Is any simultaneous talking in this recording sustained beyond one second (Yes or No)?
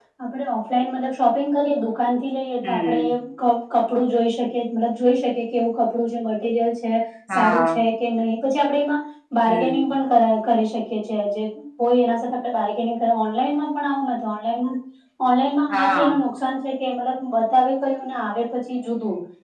No